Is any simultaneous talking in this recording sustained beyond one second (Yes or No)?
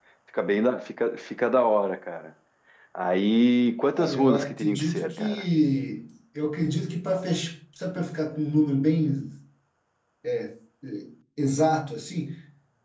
Yes